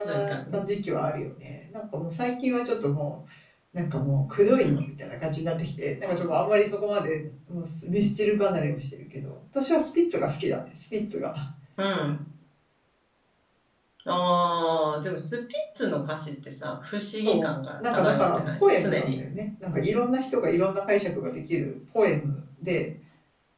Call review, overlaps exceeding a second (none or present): present